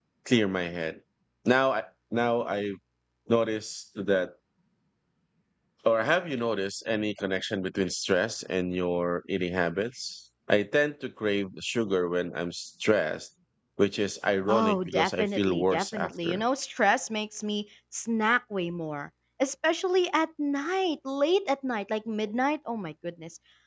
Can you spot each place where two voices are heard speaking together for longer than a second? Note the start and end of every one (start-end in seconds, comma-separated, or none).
14.5-16.4